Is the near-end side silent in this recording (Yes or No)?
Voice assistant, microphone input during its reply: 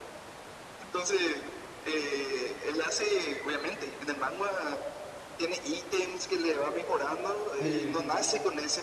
No